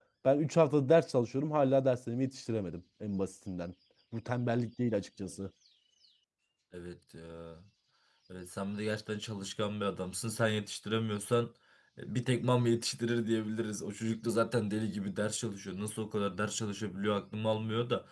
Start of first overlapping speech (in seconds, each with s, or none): none